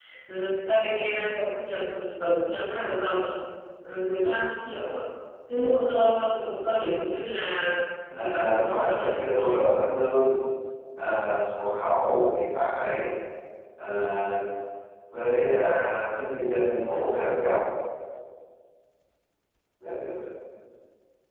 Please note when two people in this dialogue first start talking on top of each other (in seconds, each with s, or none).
8.2 s